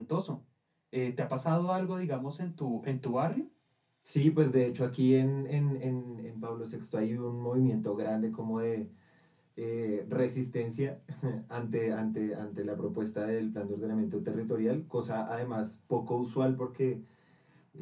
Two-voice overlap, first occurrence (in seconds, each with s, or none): none